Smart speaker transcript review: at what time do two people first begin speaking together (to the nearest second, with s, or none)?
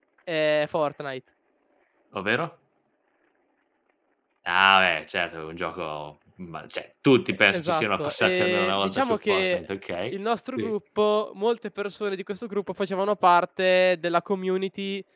8 s